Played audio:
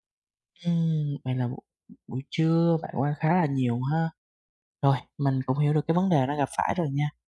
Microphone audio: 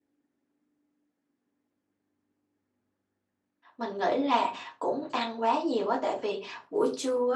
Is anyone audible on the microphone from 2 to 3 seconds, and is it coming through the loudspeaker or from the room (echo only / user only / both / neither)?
neither